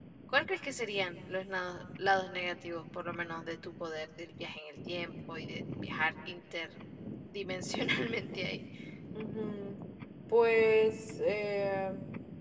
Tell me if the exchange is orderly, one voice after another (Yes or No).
Yes